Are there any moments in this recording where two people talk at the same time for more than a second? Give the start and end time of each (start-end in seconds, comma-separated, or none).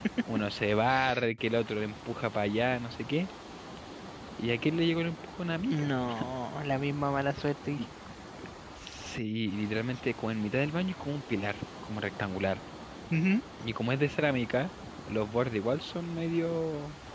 none